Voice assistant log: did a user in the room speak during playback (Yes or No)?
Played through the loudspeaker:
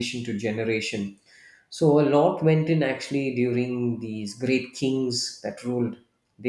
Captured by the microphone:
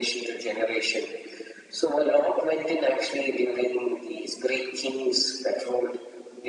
No